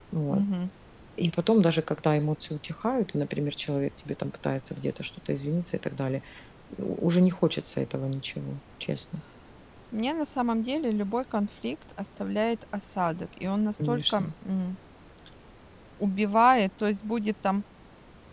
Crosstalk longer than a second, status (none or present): none